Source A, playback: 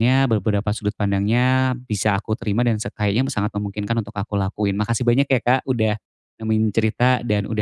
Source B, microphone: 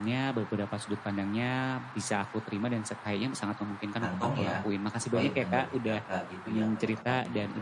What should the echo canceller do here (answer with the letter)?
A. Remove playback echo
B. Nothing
A